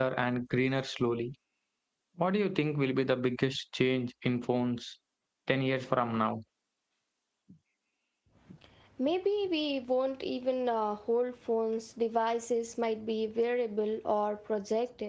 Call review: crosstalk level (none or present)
none